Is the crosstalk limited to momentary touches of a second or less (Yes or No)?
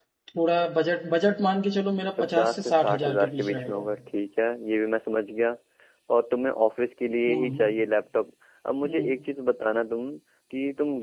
No